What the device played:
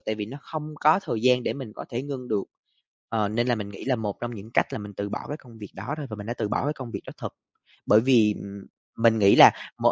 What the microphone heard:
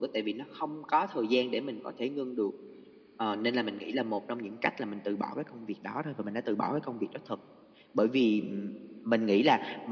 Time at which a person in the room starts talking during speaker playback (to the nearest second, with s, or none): none